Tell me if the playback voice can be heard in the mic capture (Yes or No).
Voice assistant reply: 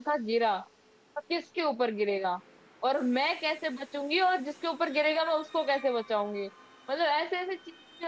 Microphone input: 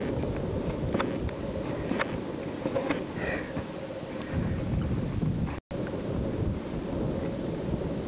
No